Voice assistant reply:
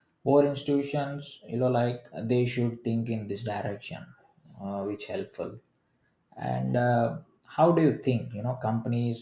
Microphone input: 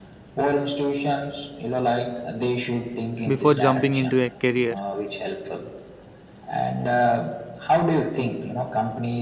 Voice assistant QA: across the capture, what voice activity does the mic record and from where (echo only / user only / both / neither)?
both